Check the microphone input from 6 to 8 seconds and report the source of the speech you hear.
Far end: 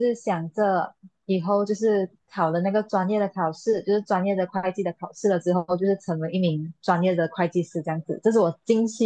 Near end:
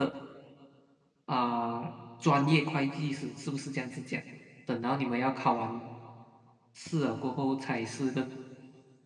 user only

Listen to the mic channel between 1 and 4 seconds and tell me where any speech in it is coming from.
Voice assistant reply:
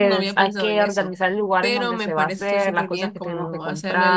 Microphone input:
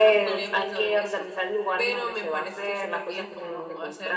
echo only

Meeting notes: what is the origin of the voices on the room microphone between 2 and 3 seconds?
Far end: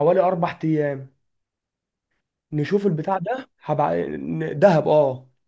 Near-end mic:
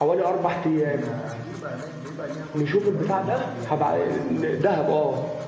both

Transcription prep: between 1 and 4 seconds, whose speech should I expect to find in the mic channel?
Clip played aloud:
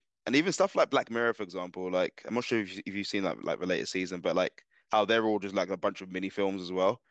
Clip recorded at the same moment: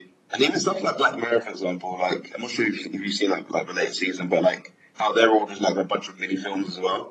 echo only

